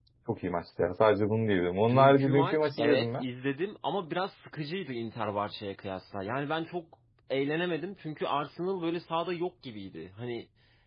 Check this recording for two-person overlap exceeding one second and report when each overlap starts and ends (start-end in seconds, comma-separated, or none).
1.9-3.2